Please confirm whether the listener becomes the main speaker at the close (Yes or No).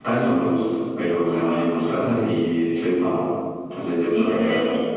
Yes